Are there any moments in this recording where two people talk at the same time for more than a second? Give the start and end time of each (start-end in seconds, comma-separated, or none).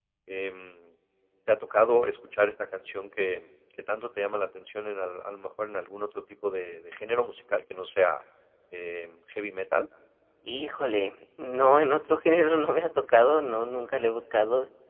none